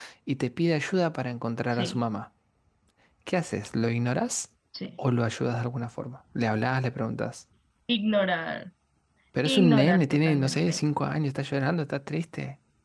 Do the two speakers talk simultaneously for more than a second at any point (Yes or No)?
Yes